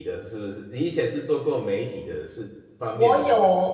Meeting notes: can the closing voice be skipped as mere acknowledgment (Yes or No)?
No